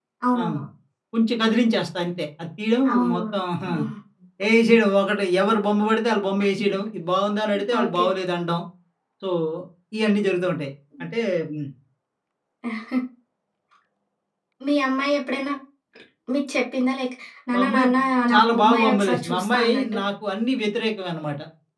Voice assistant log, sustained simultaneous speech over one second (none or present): present